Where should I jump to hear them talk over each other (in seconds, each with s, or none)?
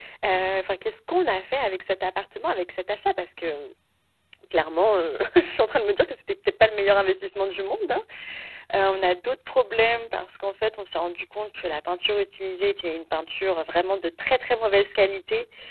none